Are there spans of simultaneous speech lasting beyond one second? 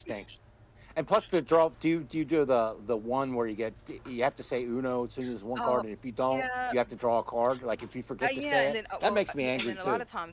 Yes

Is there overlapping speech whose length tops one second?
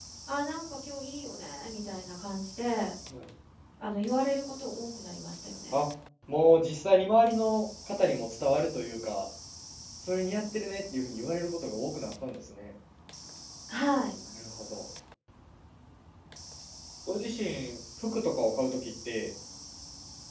No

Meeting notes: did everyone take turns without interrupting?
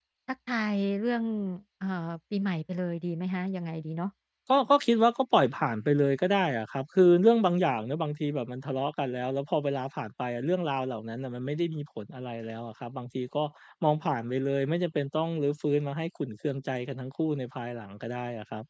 Yes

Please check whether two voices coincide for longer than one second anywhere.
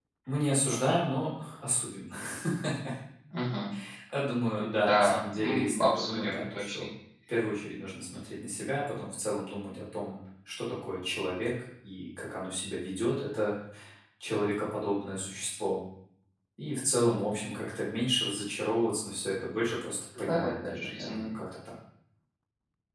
Yes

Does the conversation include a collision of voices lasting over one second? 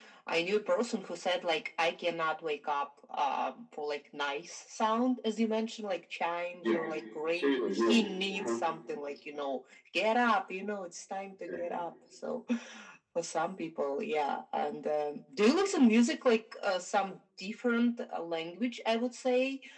Yes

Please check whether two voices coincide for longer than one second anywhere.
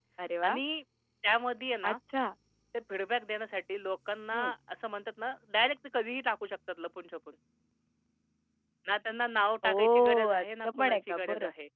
Yes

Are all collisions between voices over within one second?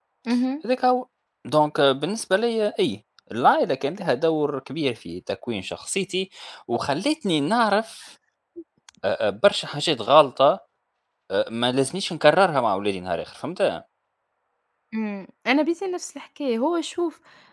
Yes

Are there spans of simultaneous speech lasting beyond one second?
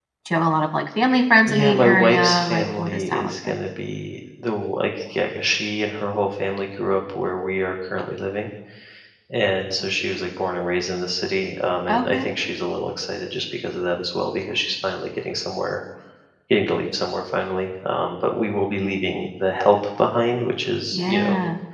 Yes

